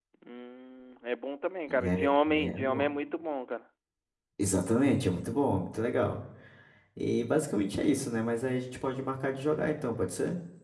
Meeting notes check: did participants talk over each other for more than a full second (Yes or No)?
Yes